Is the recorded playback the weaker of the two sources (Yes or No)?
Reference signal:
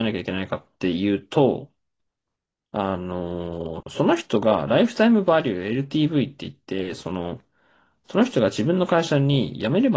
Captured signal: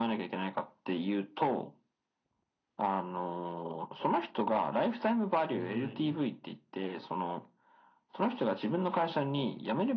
No